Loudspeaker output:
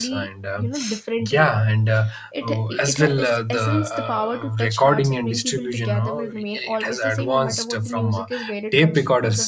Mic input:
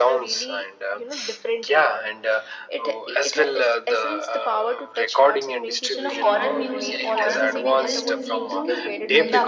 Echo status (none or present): present